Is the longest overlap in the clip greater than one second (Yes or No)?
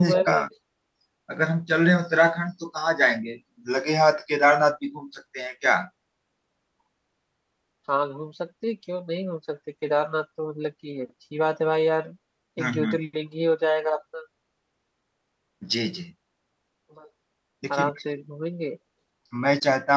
No